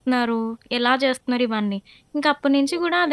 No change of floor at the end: Yes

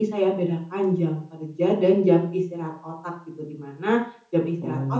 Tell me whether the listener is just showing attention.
Yes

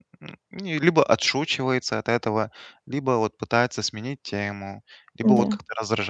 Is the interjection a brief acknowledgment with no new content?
Yes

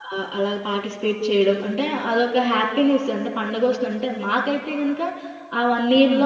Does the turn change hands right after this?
No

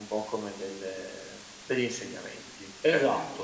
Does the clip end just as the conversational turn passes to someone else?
Yes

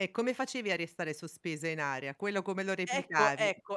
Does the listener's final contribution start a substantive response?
Yes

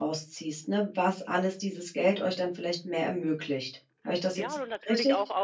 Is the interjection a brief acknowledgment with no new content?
No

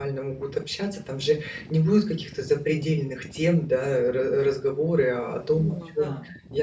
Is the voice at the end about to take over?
No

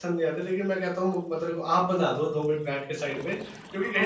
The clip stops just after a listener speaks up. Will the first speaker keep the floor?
Yes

